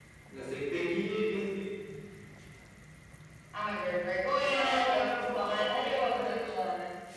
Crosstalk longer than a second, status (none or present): present